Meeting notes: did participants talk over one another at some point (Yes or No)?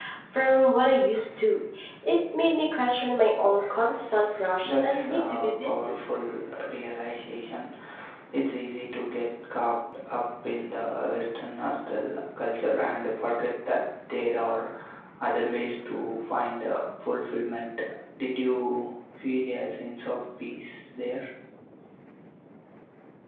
Yes